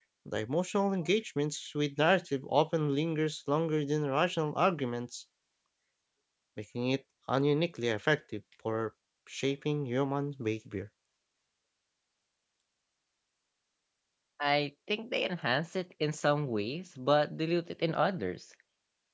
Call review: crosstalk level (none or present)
none